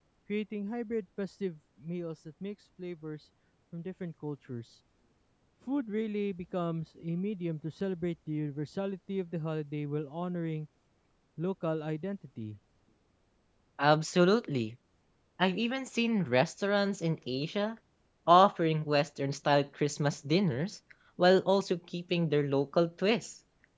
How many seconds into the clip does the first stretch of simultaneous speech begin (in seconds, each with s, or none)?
none